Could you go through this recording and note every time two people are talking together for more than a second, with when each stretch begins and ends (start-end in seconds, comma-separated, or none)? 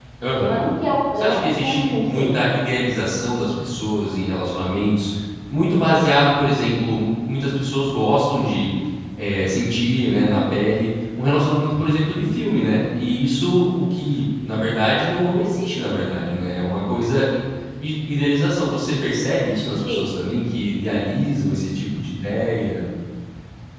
1.2-2.4